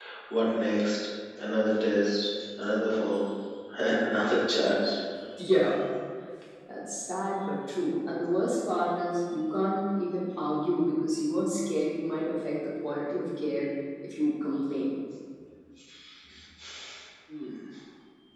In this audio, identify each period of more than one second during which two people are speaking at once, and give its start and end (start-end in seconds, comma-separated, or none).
none